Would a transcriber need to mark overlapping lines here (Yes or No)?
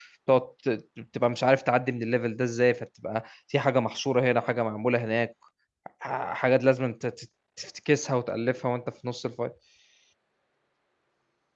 No